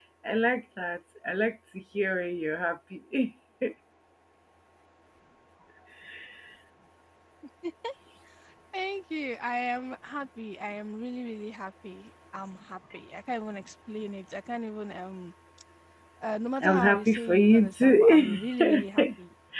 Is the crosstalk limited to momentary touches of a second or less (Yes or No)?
No